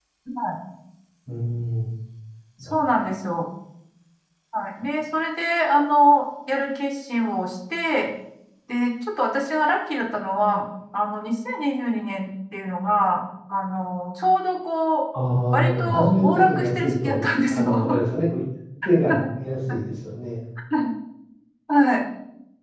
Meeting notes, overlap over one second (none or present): present